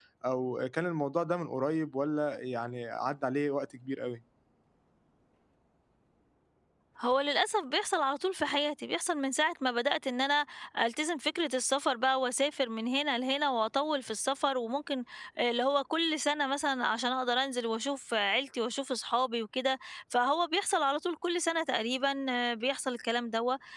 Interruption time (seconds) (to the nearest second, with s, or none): none